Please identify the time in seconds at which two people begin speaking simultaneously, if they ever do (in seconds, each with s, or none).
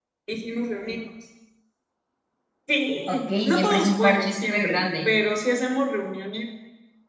3.1 s